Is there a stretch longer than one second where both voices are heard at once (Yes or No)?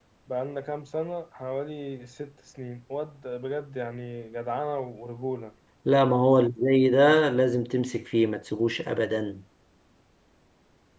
No